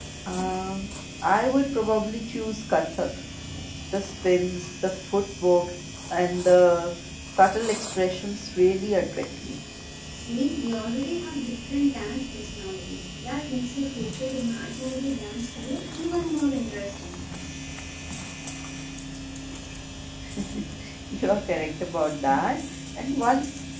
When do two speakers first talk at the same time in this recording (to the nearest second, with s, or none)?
none